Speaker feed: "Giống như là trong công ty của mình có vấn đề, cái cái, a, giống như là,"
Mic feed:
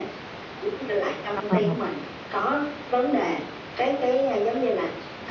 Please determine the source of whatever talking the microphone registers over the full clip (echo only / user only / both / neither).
both